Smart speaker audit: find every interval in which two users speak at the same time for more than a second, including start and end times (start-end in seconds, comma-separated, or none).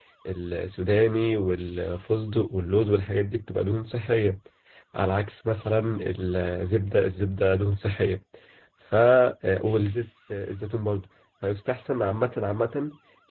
none